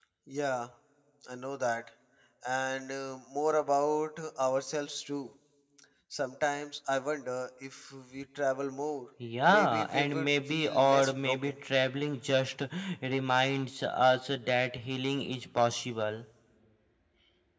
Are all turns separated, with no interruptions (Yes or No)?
No